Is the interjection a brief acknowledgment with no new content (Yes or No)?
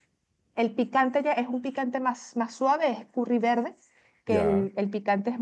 Yes